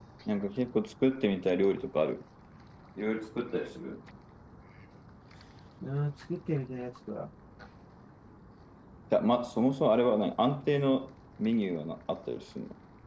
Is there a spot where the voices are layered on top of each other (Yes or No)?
No